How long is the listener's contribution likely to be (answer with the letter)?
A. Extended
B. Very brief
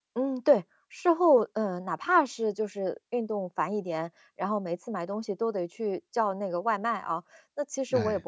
B